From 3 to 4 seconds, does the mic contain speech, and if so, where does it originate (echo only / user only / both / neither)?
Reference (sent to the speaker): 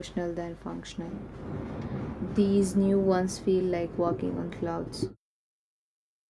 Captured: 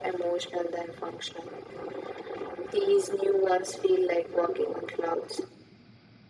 echo only